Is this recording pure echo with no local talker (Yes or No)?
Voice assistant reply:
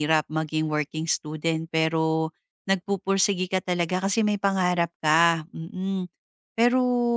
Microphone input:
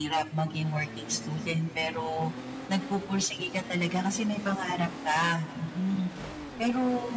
Yes